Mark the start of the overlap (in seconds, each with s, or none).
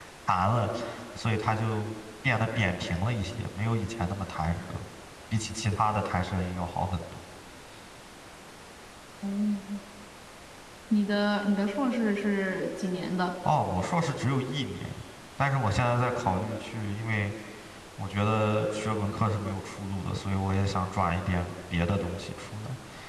none